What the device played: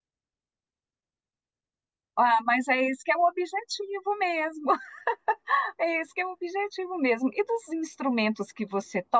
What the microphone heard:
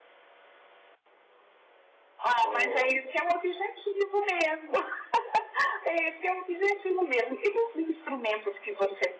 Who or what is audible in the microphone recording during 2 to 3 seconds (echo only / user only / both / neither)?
both